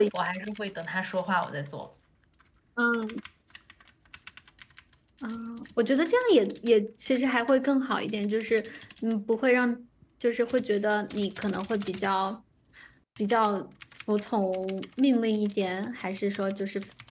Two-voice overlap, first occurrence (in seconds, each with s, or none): none